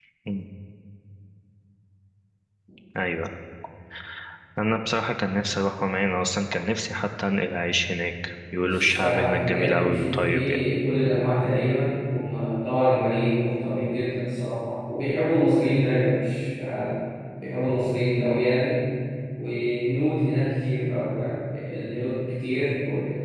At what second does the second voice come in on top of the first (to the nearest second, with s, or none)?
9 s